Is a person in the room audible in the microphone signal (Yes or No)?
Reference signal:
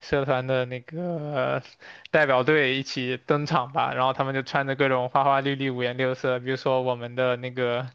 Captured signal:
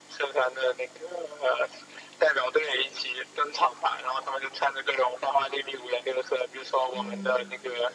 Yes